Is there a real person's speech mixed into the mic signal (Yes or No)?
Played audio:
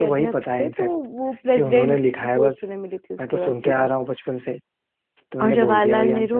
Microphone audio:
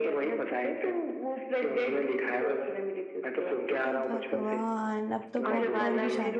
Yes